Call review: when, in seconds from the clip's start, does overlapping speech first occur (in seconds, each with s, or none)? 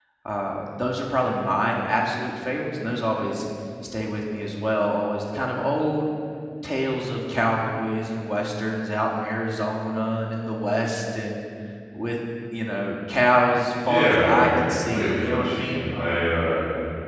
13.8 s